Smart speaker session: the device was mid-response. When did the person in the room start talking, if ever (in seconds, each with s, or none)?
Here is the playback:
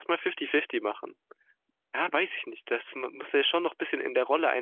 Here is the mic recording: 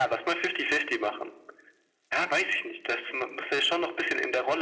none